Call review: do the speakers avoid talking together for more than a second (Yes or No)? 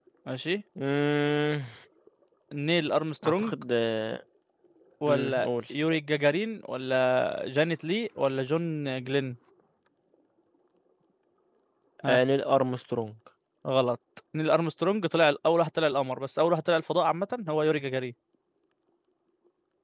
Yes